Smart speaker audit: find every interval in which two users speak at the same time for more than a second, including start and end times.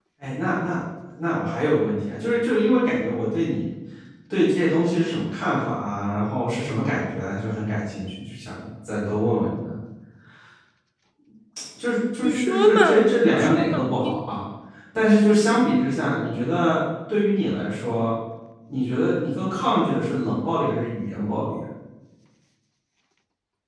12.2-14.4

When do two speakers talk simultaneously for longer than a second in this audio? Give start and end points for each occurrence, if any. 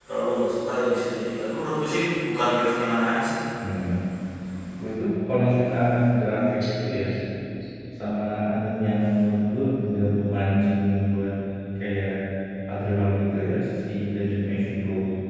none

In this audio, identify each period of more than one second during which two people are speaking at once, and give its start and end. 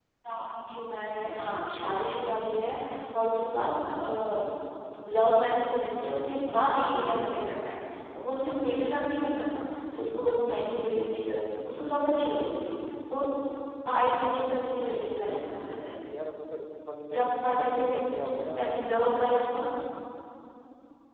17.1-18.8

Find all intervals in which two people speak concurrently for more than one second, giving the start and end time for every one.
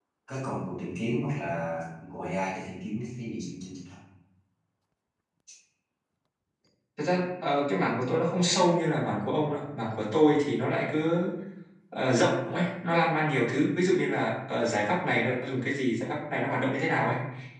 none

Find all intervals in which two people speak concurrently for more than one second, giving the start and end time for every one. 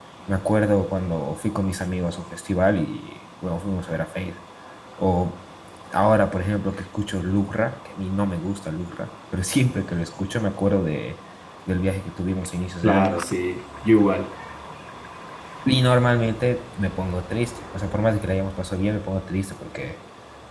none

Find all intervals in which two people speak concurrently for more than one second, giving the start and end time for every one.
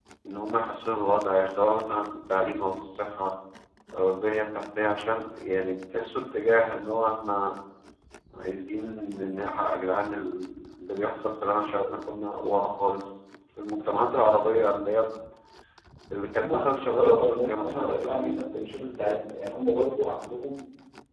16.3-18.5

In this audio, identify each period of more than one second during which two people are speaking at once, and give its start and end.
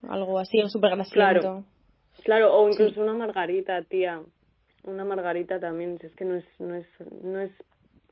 none

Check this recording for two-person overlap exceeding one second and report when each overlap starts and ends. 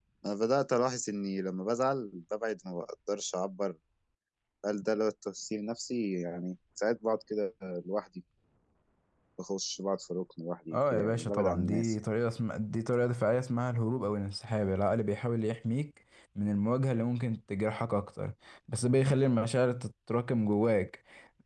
10.7-11.9

